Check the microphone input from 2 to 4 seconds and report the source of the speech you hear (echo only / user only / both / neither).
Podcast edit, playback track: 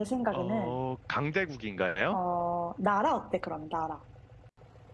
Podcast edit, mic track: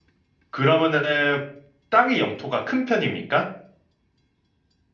user only